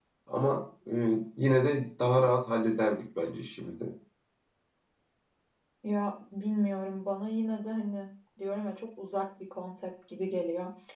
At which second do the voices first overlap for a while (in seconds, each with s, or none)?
none